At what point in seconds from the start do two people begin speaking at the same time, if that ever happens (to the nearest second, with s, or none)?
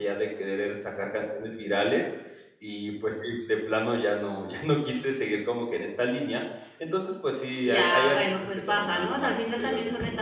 8 s